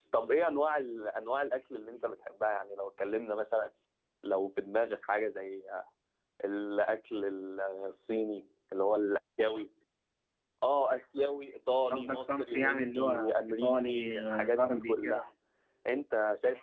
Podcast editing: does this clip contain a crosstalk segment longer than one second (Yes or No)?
Yes